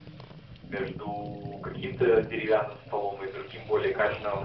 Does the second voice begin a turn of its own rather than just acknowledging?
No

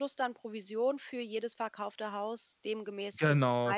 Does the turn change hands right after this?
Yes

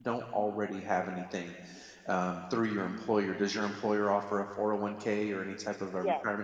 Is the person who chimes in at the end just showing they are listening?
No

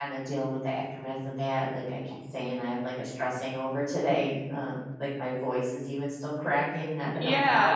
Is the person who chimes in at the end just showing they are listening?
No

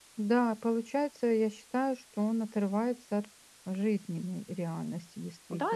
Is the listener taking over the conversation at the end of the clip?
Yes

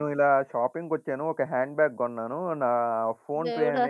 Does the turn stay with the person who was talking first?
Yes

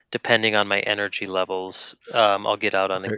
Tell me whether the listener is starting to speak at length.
Yes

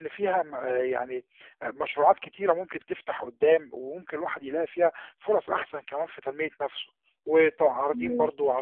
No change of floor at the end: Yes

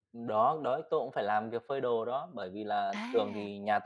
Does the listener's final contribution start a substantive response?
No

